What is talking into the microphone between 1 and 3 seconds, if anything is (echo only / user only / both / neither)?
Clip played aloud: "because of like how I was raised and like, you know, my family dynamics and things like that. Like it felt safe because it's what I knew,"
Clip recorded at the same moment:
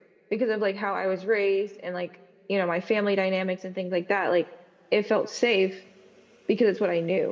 echo only